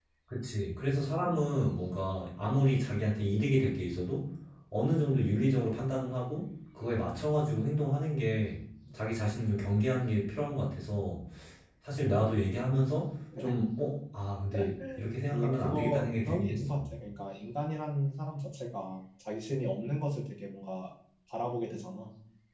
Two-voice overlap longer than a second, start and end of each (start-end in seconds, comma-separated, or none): 15.3-16.8